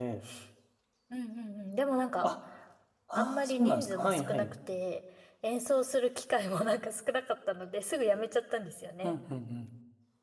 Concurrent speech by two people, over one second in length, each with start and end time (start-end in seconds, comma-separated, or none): 3.2-4.4